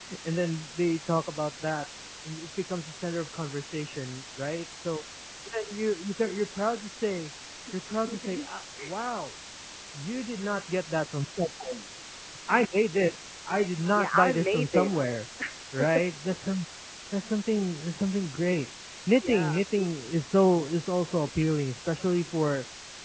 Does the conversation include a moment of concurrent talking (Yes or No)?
Yes